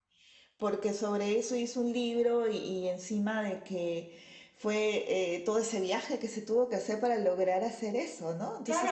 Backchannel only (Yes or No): No